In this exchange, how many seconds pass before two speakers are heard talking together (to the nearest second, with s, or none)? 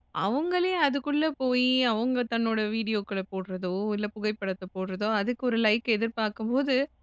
none